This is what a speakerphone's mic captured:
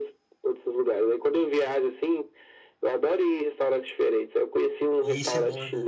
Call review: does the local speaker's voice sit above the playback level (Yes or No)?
No